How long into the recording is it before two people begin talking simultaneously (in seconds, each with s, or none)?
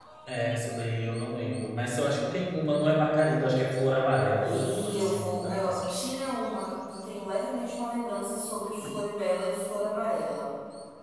4.4 s